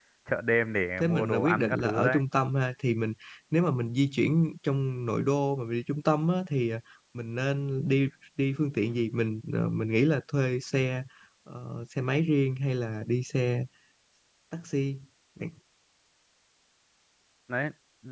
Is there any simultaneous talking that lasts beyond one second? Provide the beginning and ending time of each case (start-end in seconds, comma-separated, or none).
1.0-2.2